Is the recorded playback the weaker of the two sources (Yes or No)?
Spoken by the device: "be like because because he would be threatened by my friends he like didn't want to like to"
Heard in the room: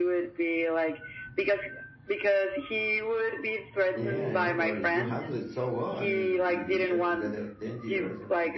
No